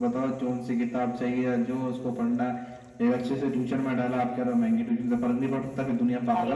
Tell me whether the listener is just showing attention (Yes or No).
No